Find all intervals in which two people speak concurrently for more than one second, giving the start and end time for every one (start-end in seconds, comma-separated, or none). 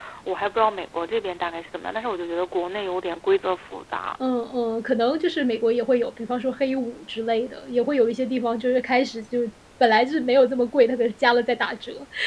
none